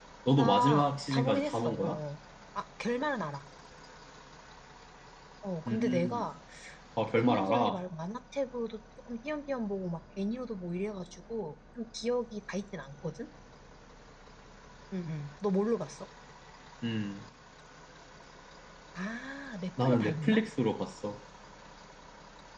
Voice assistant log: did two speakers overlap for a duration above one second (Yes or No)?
Yes